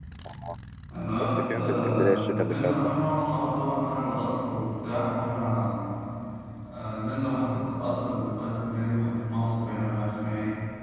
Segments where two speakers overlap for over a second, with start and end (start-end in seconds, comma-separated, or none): 1.2-3.0